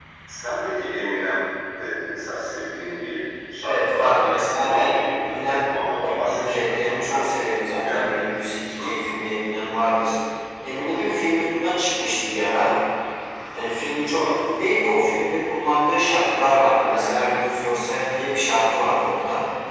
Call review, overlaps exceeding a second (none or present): present